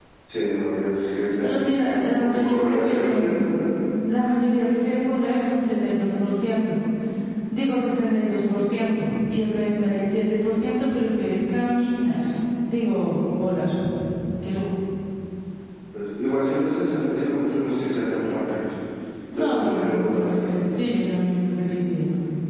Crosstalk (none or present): present